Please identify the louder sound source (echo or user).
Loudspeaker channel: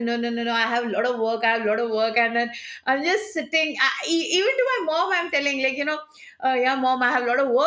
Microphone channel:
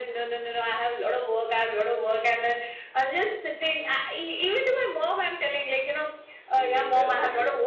echo